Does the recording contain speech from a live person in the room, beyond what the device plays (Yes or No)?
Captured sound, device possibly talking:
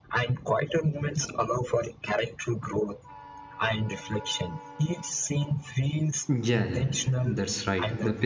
Yes